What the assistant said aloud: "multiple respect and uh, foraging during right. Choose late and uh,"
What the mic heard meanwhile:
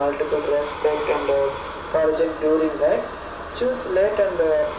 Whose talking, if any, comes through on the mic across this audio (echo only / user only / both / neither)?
echo only